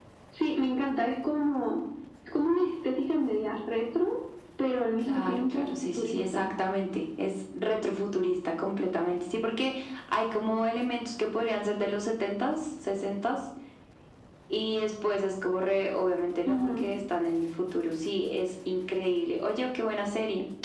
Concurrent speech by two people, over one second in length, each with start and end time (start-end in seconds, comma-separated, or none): 5.0-6.5